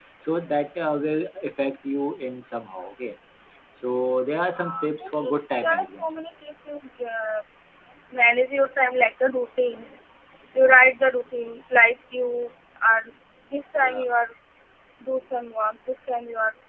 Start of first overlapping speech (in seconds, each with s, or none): 4.5 s